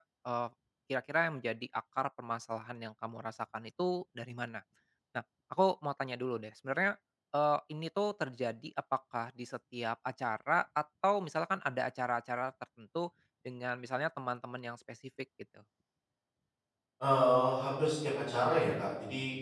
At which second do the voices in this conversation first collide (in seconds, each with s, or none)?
none